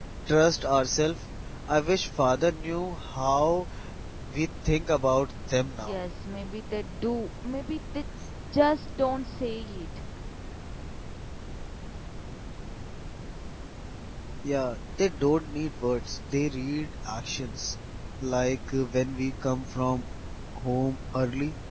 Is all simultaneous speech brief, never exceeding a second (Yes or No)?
Yes